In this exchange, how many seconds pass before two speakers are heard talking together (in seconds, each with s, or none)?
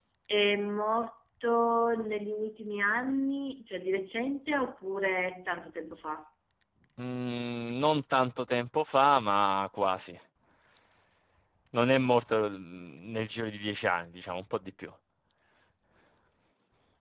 none